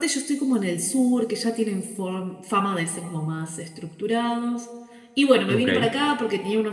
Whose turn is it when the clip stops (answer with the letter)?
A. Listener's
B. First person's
B